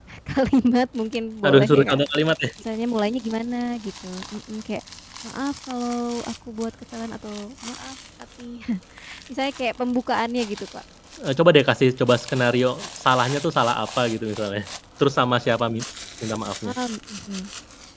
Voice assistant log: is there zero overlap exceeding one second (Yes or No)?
Yes